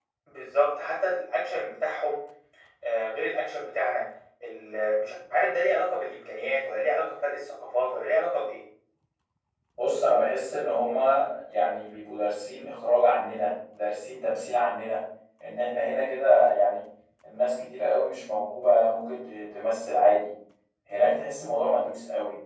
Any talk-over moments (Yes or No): No